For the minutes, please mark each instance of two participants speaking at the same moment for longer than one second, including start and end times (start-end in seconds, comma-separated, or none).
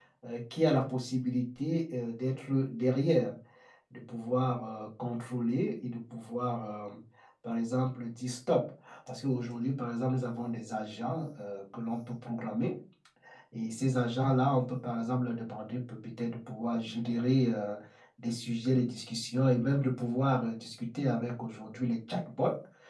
none